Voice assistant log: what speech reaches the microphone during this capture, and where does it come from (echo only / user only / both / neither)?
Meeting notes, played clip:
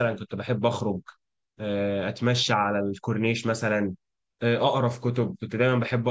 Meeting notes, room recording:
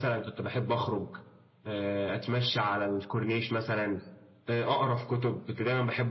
echo only